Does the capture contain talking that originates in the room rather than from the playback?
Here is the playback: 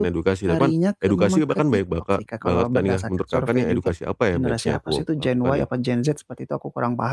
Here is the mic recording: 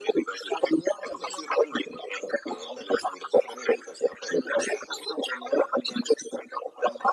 No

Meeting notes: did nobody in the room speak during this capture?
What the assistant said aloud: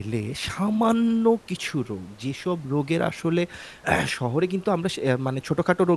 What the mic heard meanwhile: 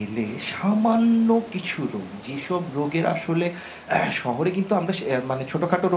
Yes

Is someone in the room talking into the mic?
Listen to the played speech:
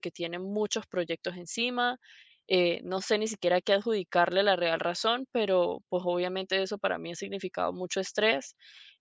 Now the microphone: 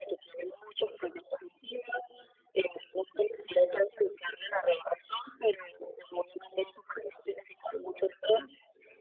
No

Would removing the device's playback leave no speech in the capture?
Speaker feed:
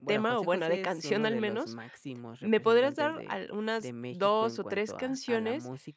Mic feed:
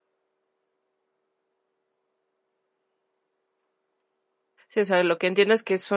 No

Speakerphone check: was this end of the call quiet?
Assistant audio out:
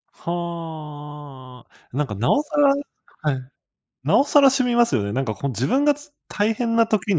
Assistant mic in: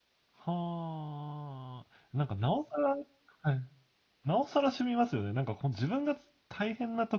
Yes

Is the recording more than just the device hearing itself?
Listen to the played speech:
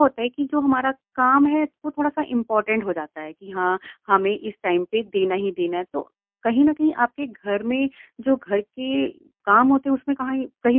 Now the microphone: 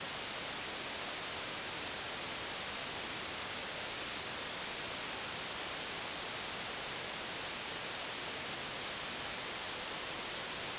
No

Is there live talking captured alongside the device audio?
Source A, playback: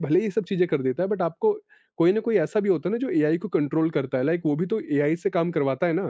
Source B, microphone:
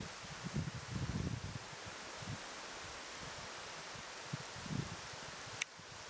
No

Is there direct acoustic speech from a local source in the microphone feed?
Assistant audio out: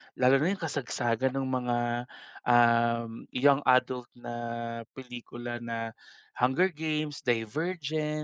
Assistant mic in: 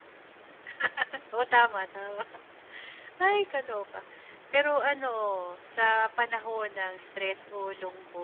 Yes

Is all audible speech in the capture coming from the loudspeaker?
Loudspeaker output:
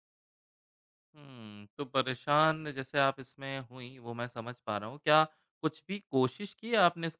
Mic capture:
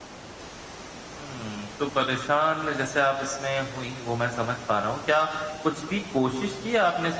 Yes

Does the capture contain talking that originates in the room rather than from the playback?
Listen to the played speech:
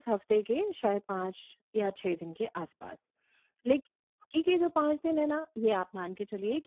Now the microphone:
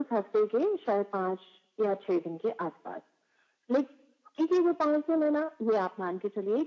No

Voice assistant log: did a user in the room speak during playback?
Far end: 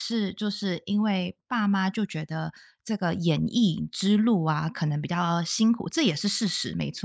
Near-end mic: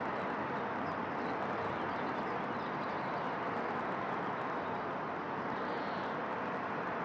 No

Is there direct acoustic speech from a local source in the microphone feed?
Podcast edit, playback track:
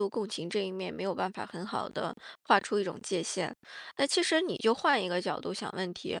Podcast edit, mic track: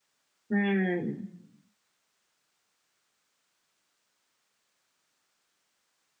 Yes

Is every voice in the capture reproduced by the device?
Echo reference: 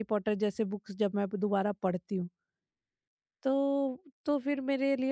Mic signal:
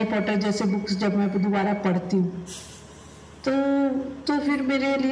Yes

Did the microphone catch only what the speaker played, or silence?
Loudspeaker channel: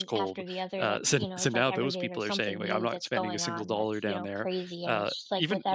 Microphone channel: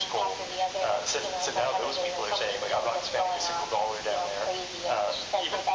Yes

